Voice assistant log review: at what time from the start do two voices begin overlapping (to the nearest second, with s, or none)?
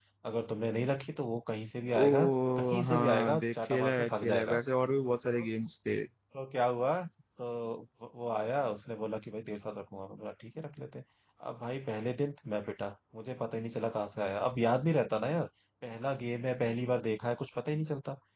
2 s